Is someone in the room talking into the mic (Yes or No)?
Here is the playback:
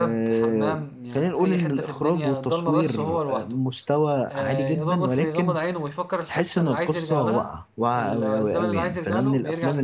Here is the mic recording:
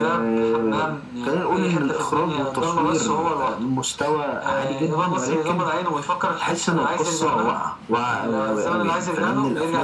No